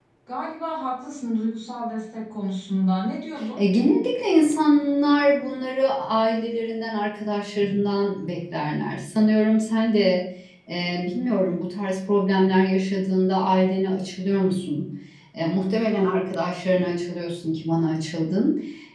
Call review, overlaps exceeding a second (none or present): none